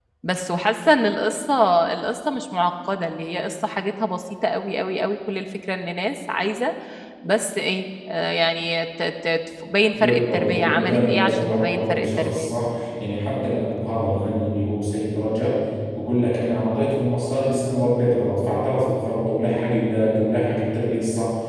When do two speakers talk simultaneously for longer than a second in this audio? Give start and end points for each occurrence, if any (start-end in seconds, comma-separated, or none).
9.9-12.5